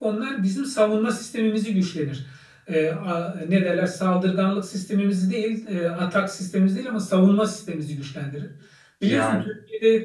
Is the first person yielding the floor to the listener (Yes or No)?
No